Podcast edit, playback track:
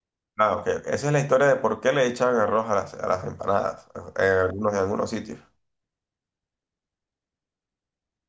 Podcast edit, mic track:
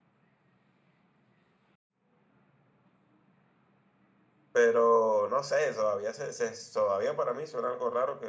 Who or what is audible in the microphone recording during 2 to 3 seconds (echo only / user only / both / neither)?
neither